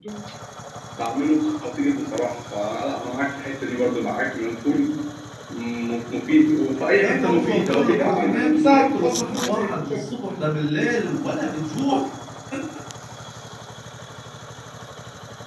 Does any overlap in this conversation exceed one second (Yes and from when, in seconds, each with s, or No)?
Yes, from 7.0 s